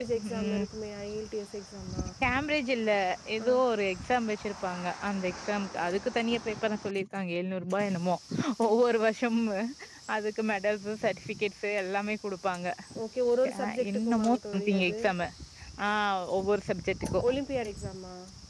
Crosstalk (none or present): present